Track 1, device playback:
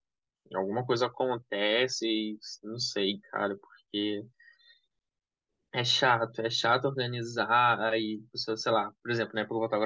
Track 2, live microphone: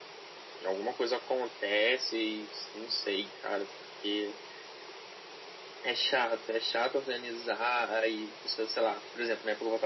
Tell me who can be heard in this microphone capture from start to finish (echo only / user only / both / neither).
echo only